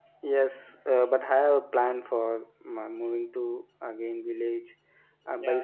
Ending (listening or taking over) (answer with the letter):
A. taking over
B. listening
B